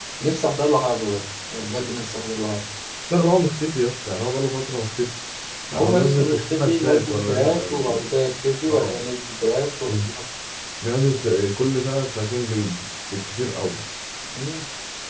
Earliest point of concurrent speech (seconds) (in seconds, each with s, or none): 5.7 s